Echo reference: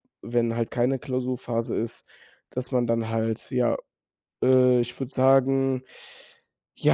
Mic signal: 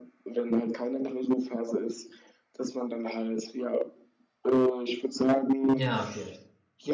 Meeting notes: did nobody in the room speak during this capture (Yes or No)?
No